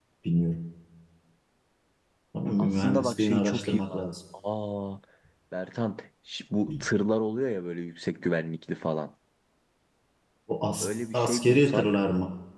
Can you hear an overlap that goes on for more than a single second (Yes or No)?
Yes